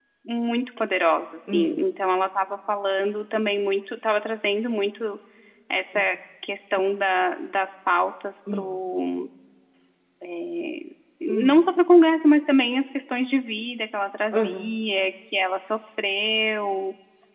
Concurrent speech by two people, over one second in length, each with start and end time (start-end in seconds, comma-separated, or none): none